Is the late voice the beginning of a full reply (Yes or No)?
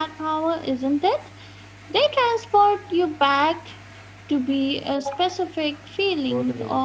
Yes